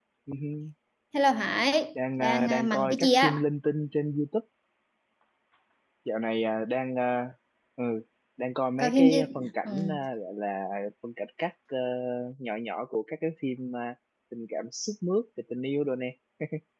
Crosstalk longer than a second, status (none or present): present